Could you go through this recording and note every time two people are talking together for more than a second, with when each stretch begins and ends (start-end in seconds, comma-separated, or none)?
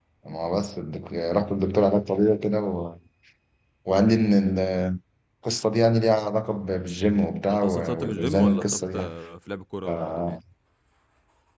7.5-9.1